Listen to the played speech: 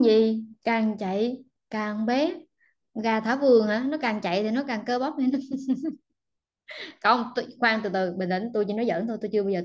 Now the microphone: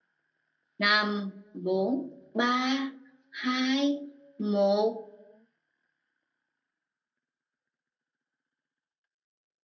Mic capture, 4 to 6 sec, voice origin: user only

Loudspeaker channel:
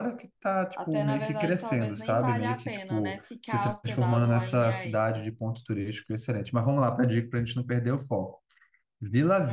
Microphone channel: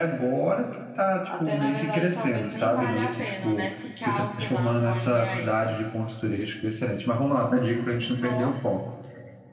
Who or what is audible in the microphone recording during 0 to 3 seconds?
echo only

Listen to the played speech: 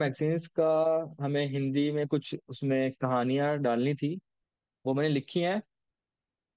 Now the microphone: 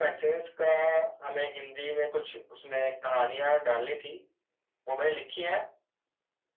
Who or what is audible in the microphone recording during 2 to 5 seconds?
echo only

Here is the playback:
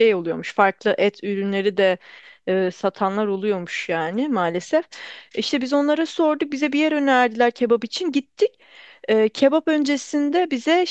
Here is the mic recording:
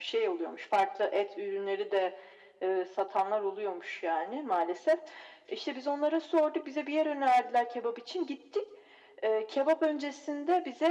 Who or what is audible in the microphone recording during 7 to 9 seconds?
echo only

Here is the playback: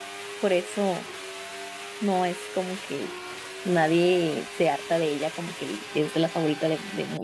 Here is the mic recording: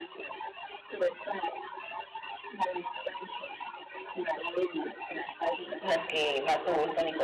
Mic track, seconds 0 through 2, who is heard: echo only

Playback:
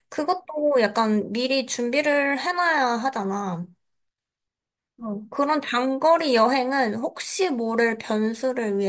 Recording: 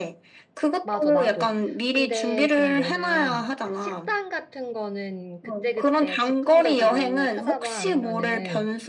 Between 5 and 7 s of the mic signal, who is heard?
both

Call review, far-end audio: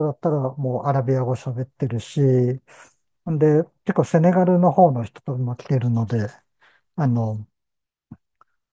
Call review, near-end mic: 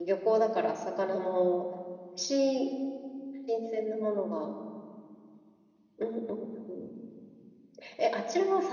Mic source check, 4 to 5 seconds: user only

